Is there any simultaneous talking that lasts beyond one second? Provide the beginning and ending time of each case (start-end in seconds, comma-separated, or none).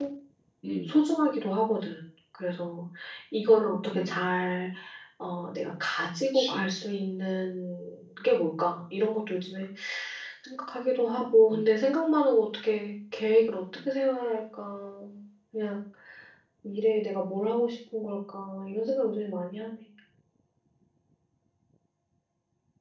none